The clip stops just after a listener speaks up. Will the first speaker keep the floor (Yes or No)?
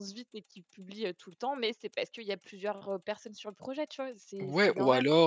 No